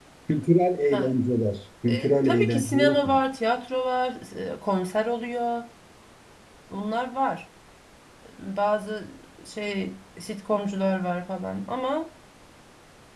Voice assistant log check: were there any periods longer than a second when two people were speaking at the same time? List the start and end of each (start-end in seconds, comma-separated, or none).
1.9-3.2